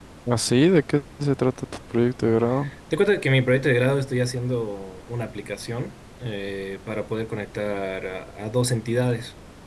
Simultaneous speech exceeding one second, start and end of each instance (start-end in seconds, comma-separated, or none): none